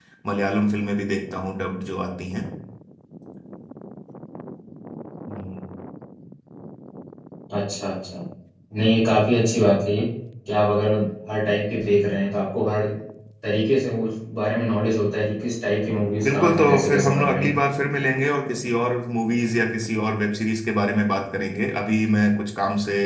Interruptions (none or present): present